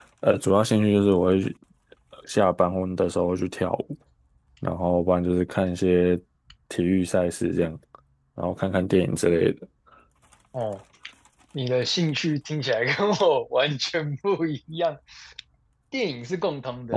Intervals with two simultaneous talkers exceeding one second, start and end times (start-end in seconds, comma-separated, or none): none